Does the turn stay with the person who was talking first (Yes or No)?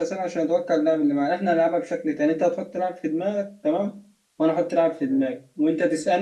Yes